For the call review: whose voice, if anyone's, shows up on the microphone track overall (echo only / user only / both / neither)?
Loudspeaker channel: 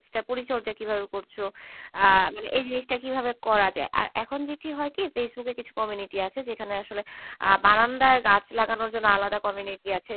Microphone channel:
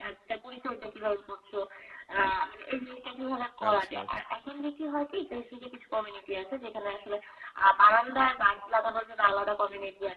both